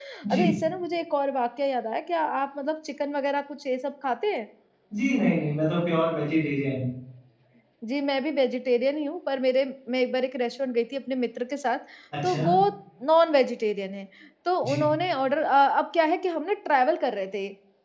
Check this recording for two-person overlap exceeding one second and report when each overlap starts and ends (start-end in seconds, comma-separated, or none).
none